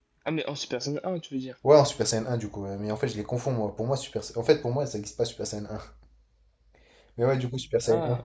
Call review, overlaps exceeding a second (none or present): none